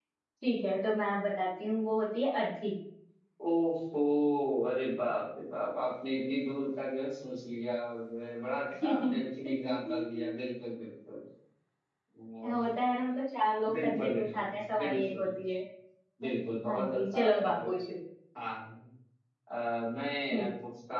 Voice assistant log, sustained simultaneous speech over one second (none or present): present